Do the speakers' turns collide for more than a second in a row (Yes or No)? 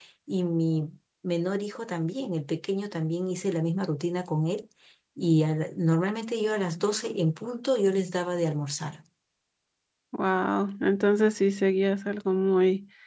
No